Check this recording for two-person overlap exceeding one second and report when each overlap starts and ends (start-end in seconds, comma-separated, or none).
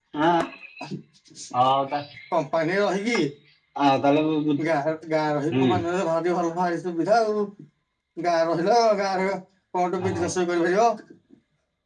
none